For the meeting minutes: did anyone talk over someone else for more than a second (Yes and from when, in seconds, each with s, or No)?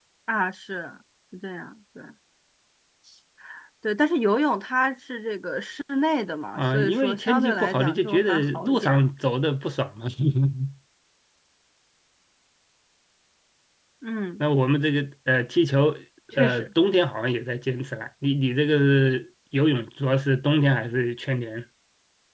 Yes, from 6.6 s